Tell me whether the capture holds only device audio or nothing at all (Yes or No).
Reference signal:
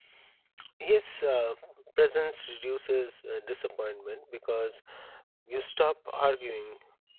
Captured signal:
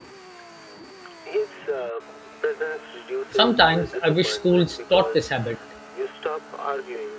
No